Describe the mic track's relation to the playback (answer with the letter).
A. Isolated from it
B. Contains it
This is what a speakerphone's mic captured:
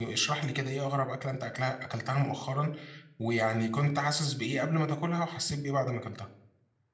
A